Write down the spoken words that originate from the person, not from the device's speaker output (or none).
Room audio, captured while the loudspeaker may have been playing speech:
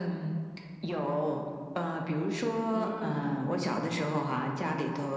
嗯